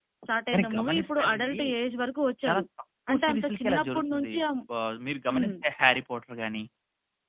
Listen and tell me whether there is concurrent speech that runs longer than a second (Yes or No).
Yes